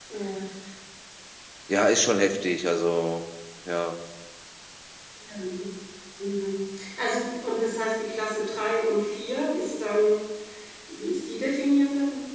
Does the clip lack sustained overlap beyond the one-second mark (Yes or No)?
Yes